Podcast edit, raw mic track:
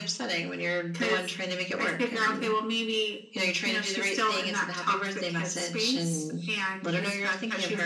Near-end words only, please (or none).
none